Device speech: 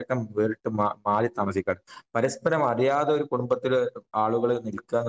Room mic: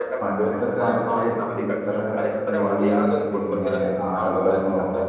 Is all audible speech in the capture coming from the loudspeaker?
No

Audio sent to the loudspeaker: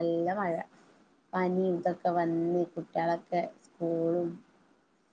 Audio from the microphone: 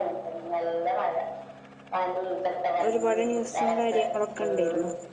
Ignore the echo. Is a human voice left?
Yes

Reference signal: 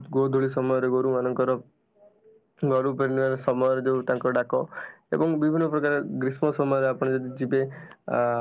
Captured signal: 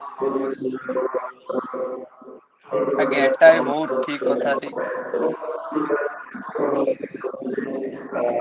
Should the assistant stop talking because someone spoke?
Yes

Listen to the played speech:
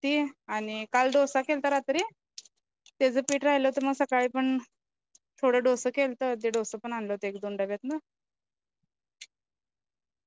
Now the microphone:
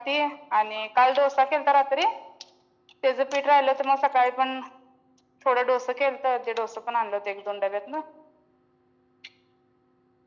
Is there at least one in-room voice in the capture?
No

